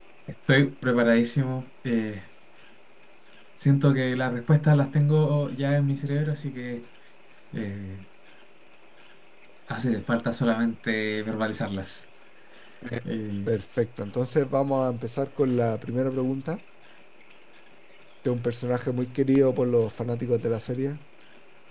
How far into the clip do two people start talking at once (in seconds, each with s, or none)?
none